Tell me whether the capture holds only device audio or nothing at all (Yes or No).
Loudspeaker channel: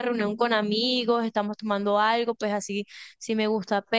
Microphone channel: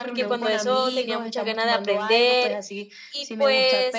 No